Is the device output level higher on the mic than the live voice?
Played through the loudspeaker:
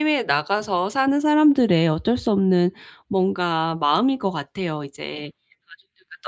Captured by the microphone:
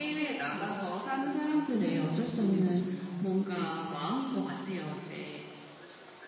Yes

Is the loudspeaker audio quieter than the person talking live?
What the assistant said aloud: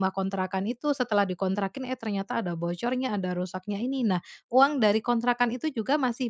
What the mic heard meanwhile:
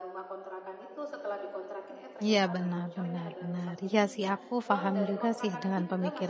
Yes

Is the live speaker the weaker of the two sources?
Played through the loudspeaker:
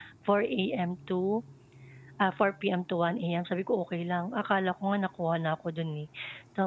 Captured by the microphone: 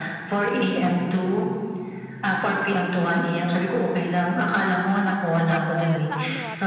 Yes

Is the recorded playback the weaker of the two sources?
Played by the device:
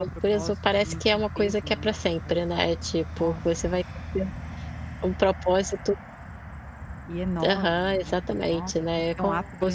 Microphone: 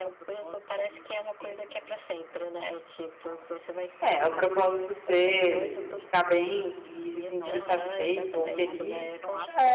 Yes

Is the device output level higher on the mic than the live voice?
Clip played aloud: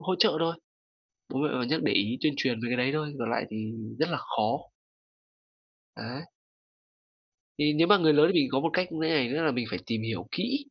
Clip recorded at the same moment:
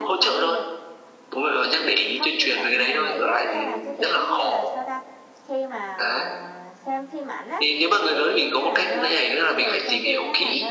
Yes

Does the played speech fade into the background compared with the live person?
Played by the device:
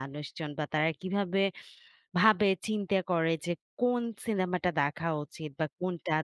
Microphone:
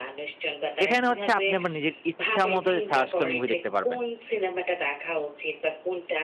Yes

